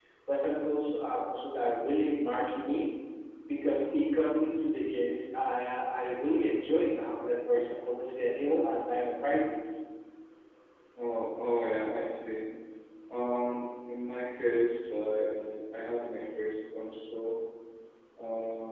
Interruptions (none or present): none